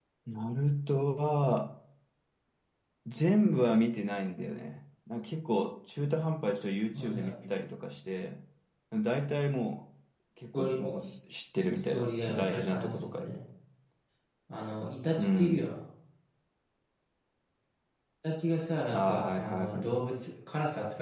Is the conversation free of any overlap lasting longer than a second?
No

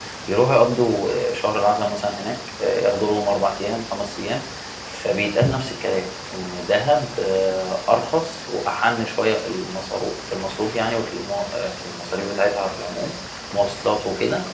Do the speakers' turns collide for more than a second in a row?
No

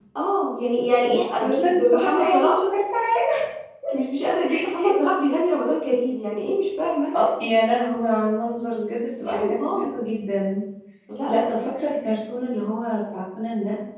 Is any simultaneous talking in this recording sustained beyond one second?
Yes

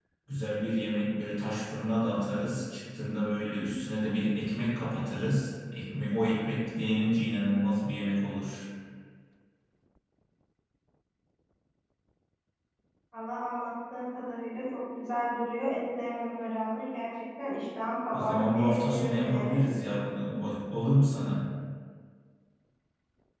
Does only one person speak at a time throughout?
No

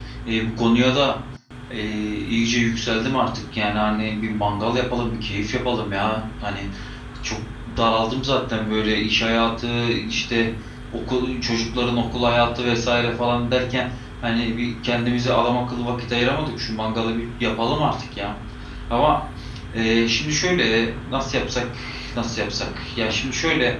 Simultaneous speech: No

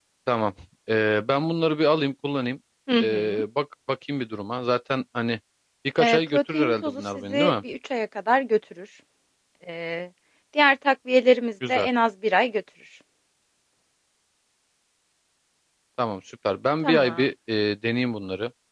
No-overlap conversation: No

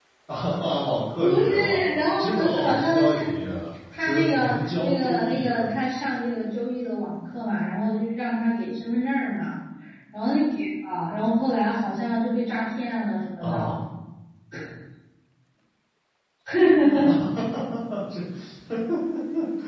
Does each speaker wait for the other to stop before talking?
No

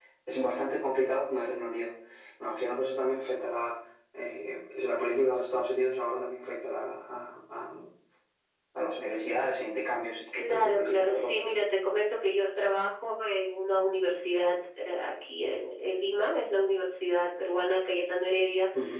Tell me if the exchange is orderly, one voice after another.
No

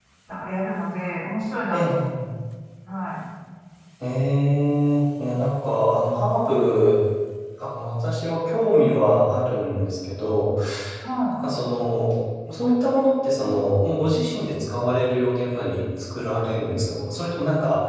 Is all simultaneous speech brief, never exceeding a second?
Yes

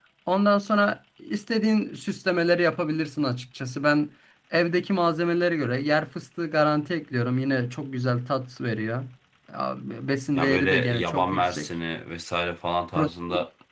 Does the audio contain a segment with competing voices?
Yes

